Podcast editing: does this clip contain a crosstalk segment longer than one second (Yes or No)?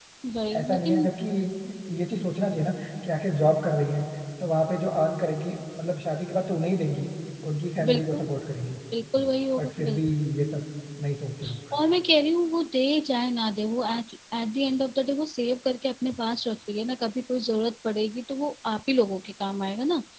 No